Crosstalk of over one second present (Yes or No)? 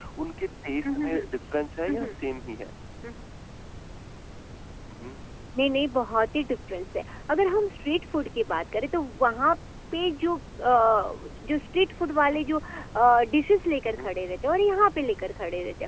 No